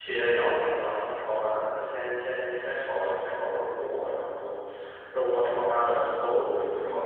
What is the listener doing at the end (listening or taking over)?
taking over